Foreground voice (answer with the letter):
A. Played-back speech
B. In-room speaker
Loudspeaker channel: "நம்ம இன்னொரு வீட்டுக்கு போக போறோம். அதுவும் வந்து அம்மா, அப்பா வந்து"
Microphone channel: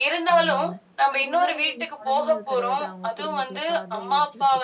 A